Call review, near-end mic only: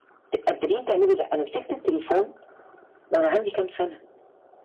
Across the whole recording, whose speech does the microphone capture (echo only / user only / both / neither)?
echo only